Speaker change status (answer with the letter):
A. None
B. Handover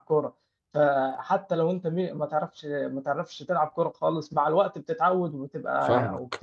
B